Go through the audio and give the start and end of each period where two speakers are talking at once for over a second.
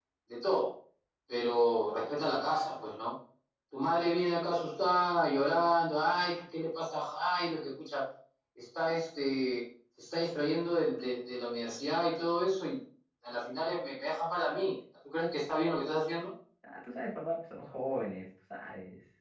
none

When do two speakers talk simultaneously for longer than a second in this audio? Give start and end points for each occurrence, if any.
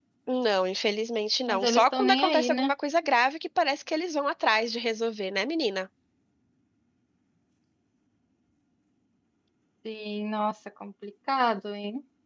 1.5-2.7

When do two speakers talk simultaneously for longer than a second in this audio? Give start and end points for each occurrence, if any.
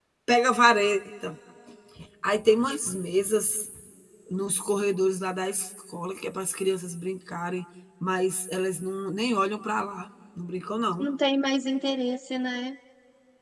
none

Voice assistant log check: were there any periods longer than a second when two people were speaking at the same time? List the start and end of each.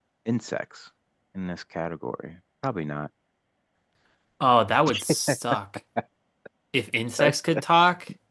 none

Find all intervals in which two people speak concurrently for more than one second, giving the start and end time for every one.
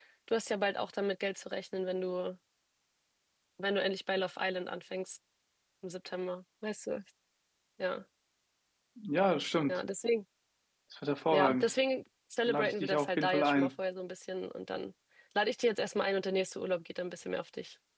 12.5-13.7

